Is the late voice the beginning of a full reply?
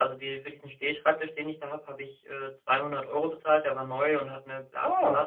No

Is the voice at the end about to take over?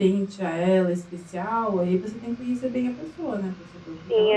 Yes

